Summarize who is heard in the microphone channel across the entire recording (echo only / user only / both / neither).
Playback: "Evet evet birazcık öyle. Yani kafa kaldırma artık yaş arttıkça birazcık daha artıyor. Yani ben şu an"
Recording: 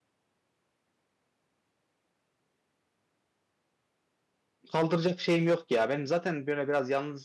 user only